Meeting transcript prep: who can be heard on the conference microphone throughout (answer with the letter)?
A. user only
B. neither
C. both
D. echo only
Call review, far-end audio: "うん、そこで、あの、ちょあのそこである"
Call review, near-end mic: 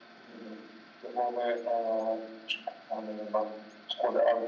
D